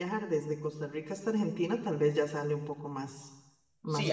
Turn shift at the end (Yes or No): Yes